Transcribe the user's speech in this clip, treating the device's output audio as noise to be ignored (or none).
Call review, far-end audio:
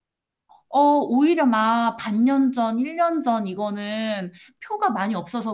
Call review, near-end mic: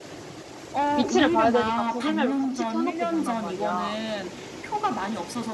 위치를 봐야 되니까 구글맵을 같이 켜놓고 본단 말이야.